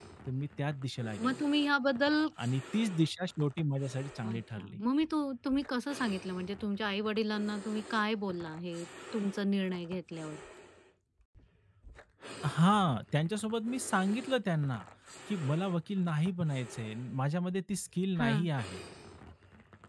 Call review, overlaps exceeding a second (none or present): none